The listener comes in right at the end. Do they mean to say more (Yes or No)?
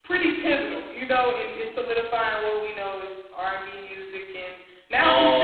No